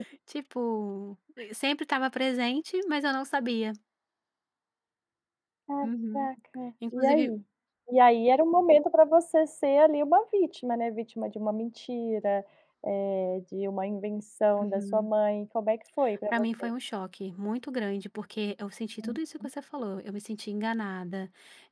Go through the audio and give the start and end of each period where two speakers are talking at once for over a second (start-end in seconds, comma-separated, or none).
none